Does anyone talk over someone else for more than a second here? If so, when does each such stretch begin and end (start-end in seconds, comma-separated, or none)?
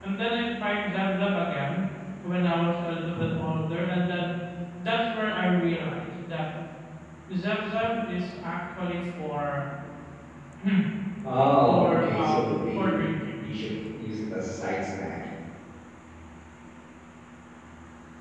11.6-13.0